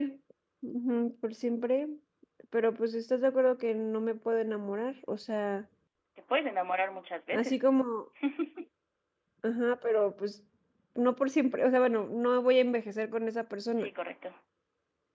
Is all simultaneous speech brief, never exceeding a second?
Yes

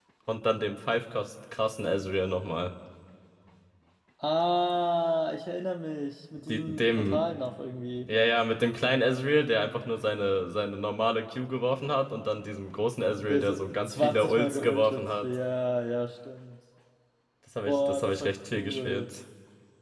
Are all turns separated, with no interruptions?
No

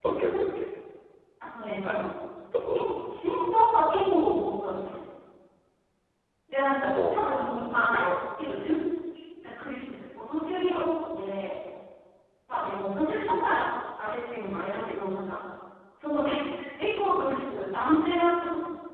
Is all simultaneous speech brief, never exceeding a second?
Yes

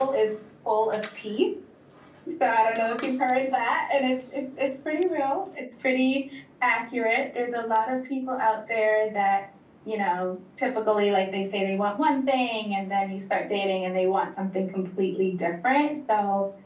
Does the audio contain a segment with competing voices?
No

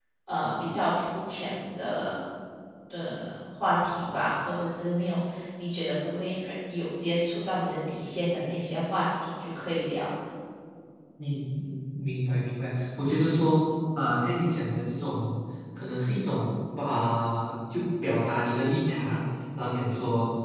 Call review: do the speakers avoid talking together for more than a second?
Yes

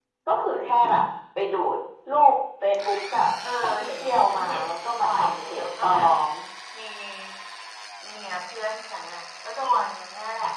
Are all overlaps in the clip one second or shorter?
No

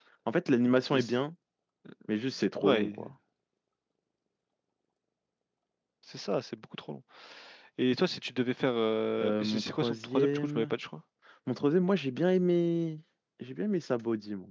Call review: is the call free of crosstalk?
No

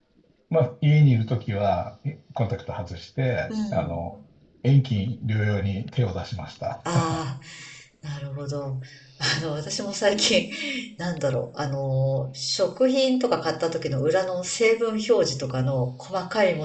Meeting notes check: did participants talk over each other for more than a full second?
No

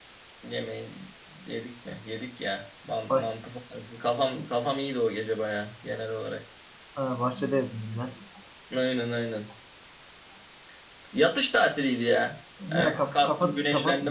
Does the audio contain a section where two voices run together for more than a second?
Yes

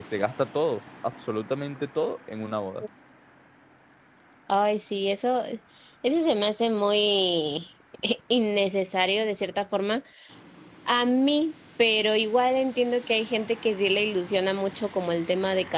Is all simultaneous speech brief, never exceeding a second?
Yes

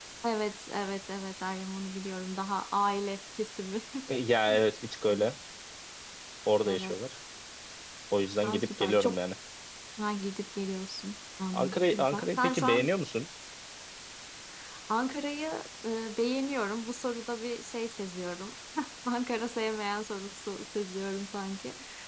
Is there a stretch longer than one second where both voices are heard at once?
Yes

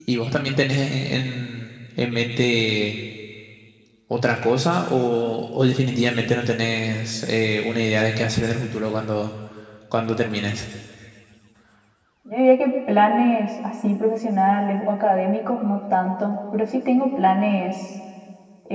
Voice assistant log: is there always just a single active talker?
Yes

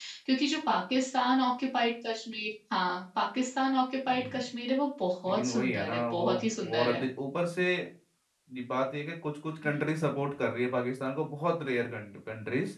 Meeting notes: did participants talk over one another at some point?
Yes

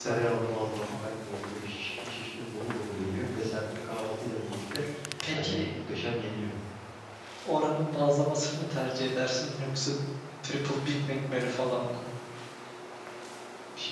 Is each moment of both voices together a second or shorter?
Yes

